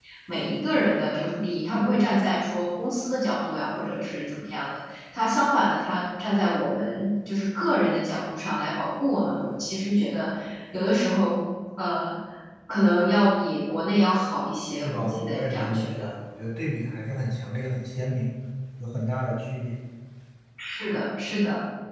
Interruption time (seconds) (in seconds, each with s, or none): 14.8 s